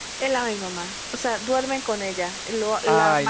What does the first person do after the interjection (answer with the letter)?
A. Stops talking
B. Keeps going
B